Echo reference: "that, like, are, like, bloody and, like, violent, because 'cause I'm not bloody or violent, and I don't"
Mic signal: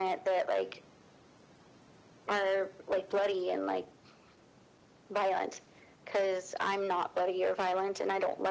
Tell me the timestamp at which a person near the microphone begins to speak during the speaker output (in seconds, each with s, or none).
none